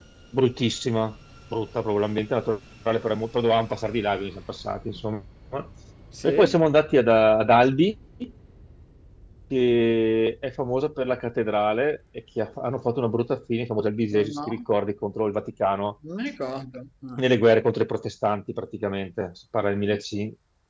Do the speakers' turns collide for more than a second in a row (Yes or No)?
No